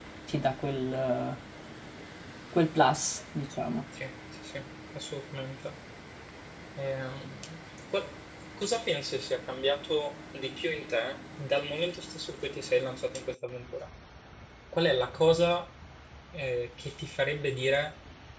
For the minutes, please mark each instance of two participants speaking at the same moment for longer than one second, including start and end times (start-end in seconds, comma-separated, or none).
none